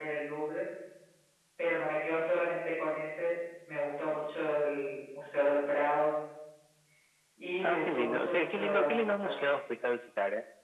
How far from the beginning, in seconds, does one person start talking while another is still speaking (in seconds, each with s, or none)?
7.6 s